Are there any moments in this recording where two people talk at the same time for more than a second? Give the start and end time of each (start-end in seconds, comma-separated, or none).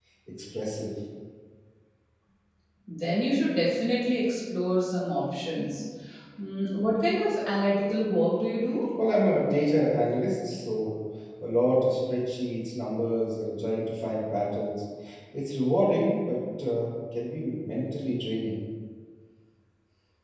none